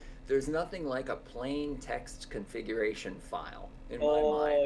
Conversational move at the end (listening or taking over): taking over